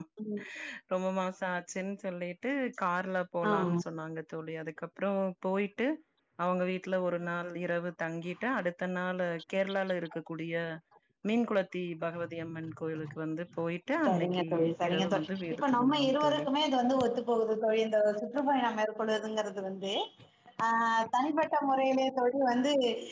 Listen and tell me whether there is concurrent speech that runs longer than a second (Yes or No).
Yes